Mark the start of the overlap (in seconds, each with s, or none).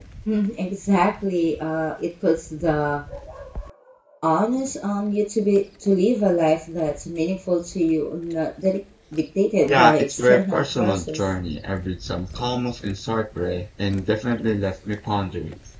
9.7 s